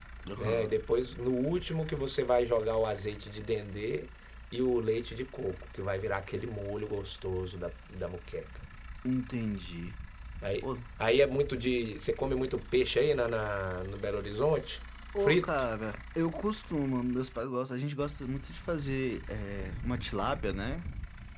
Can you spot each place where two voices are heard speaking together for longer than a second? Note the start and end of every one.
none

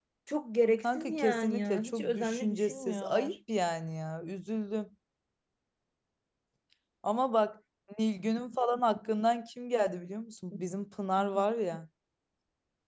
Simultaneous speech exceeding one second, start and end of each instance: 0.8-3.4

